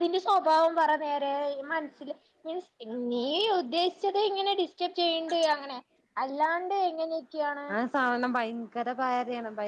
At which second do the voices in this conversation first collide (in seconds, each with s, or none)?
none